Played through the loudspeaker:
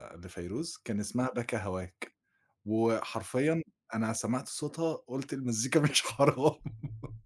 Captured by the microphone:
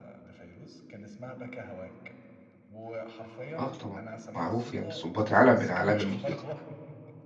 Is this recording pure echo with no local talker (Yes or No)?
No